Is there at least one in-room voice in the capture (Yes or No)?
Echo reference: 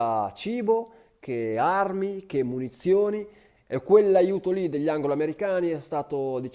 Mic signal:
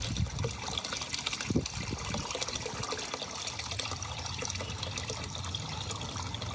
No